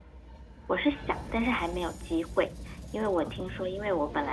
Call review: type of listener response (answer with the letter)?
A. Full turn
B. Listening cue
B